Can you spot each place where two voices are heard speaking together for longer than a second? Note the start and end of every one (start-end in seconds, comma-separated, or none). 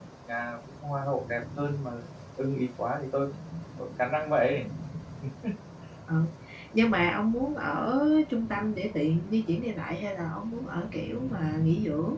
none